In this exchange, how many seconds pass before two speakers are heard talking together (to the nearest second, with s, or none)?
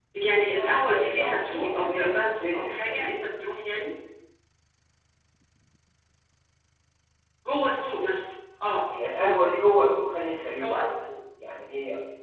1 s